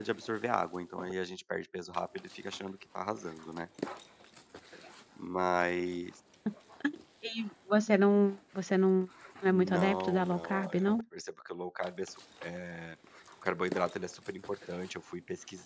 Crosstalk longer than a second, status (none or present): present